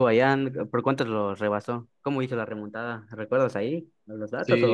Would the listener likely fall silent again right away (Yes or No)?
No